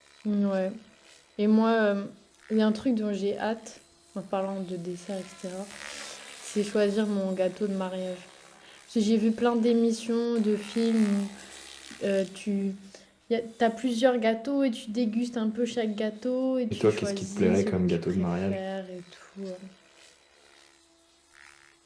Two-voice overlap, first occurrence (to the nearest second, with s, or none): 17 s